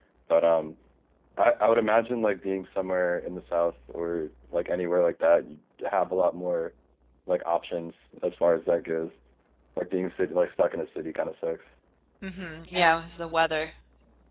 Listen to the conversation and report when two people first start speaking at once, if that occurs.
none

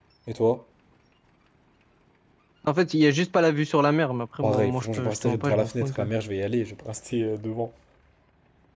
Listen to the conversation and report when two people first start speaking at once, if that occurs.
4.4 s

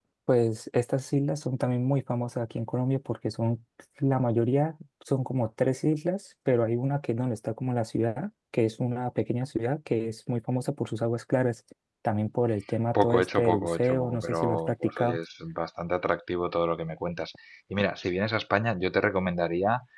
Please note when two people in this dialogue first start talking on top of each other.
12.9 s

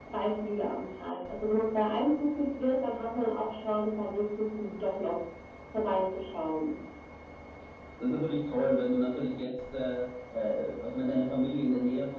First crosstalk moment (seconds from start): none

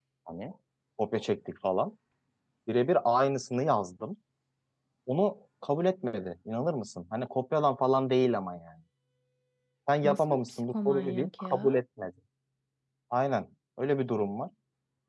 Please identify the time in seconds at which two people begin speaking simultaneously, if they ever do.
10.0 s

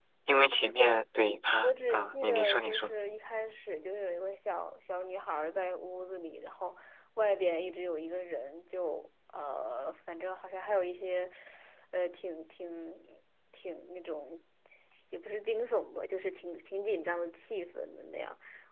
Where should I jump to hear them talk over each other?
1.6 s

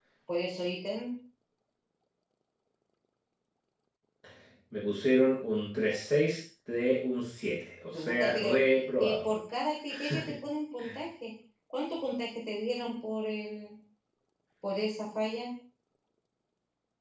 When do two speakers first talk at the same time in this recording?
7.9 s

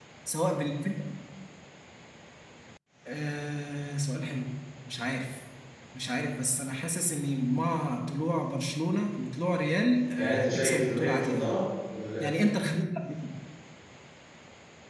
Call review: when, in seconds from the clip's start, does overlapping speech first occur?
10.2 s

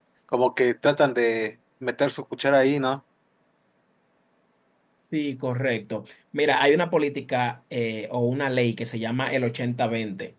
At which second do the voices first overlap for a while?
none

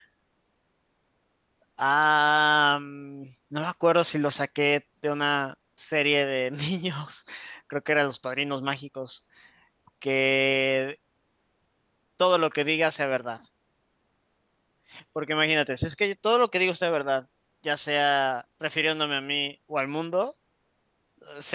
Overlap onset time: none

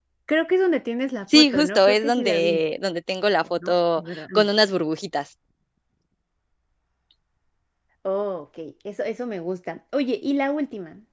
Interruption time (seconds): 1.3 s

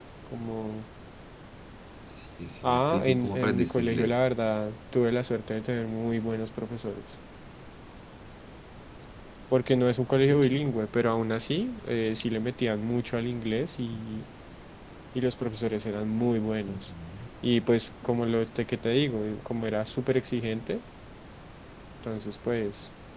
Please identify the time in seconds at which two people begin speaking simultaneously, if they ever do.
2.6 s

